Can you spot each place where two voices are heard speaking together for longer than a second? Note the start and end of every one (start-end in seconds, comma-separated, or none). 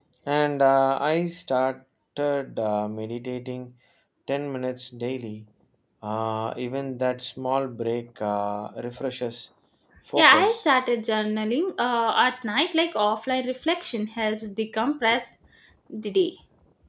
none